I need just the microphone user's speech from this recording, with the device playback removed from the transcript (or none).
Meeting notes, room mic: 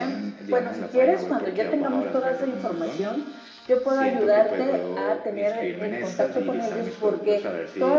none